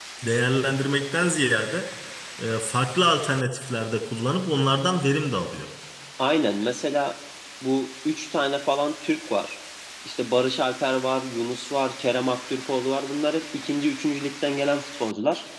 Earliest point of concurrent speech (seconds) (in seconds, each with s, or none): none